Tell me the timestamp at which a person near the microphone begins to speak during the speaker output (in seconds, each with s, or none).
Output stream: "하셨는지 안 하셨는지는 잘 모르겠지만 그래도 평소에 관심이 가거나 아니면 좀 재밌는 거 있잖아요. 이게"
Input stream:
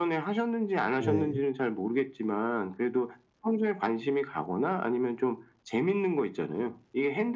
1.0 s